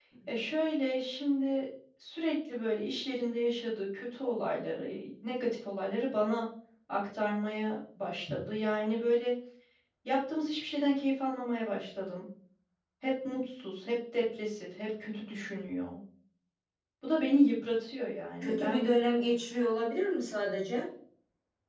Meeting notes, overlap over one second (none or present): none